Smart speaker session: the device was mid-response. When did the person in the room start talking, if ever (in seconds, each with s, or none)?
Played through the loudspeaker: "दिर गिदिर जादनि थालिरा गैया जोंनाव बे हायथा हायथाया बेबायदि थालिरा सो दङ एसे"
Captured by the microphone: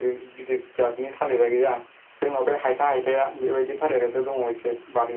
none